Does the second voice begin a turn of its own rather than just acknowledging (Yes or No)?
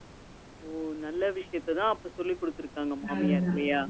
Yes